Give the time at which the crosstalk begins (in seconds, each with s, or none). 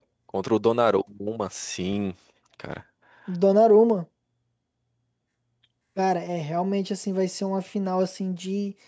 none